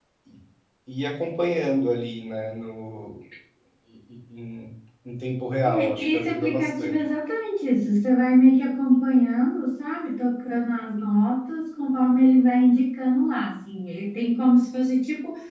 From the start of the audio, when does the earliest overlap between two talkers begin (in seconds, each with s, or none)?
5.6 s